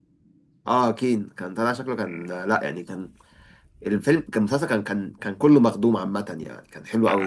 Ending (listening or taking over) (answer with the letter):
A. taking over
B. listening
A